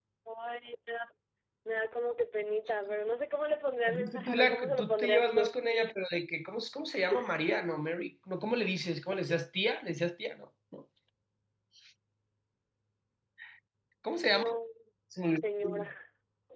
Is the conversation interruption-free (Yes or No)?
No